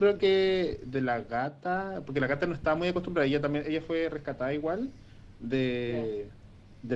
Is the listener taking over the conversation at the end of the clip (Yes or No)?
No